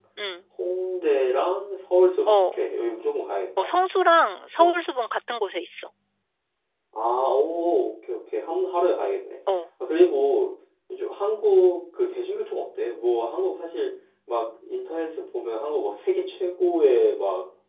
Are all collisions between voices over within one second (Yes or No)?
Yes